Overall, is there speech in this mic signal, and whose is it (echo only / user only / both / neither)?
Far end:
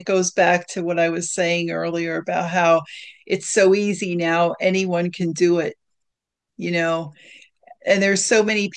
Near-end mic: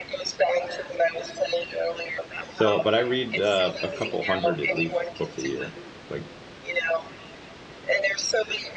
both